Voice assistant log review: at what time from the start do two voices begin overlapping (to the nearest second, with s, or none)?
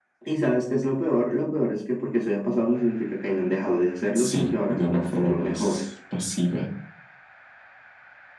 4 s